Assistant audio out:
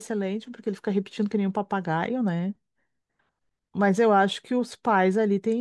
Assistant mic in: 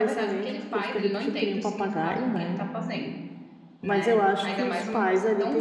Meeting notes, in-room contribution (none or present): present